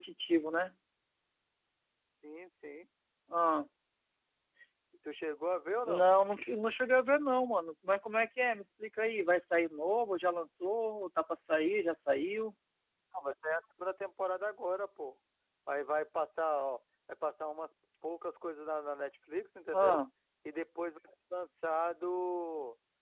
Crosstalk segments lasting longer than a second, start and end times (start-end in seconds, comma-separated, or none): none